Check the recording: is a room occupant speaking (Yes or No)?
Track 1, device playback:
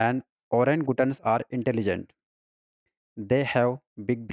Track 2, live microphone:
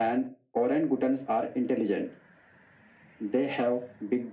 No